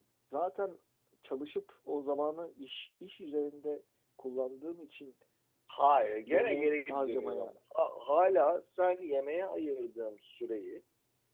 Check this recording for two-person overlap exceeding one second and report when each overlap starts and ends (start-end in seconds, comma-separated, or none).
6.3-7.5